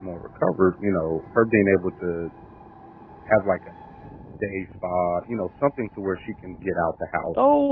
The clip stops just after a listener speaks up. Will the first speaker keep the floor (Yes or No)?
No